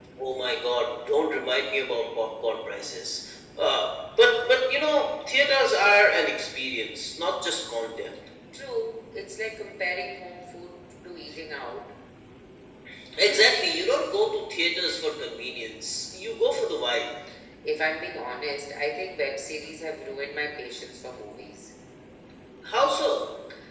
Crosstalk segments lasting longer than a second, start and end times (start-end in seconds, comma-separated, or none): none